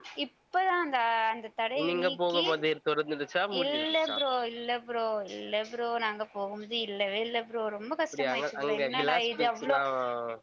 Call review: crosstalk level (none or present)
present